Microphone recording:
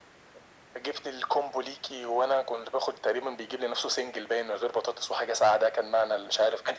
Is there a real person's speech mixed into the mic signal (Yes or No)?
No